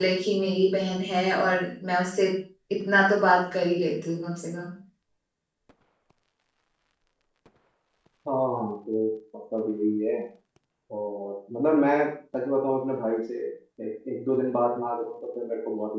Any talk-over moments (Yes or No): No